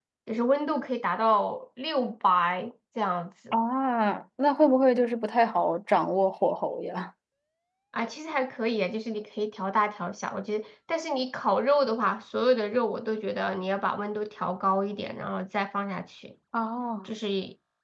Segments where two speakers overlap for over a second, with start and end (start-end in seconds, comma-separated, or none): none